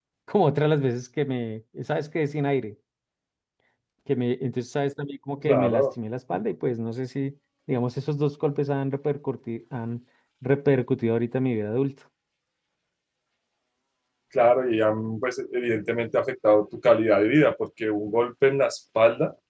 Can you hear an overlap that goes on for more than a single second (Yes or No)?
No